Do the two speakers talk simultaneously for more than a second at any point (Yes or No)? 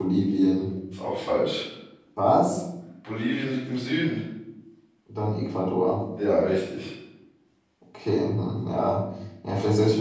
No